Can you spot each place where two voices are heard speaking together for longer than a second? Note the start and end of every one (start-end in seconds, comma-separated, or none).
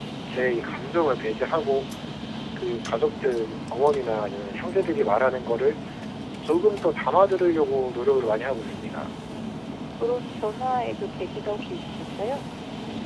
none